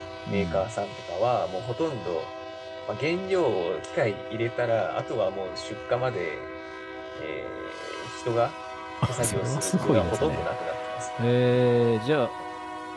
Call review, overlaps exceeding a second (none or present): present